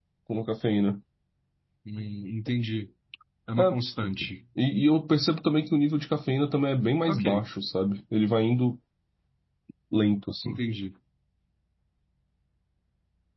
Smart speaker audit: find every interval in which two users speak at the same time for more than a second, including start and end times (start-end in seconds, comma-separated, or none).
none